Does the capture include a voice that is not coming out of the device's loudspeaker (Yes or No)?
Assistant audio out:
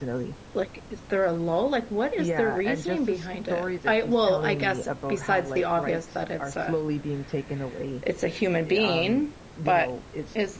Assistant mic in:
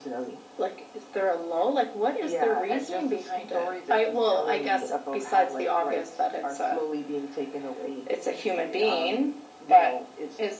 No